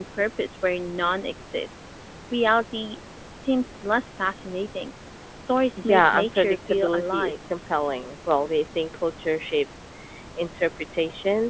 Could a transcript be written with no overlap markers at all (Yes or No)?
No